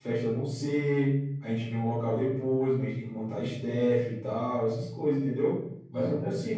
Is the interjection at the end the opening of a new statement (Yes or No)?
No